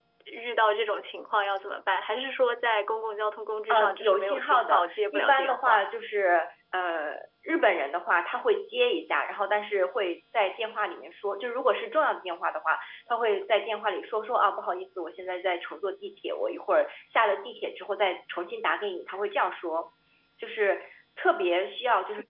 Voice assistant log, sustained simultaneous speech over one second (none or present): present